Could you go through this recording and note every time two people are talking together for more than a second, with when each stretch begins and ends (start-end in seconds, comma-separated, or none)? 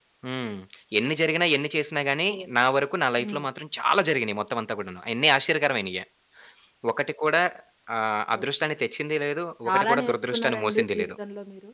9.6-11.1